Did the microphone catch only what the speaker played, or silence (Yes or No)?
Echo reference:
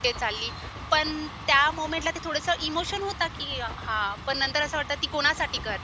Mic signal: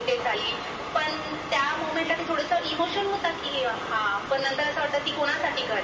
Yes